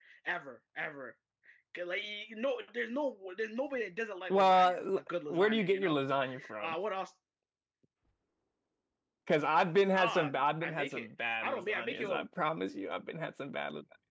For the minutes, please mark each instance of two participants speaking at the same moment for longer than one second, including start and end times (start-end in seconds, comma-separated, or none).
4.3-6.0, 9.9-12.2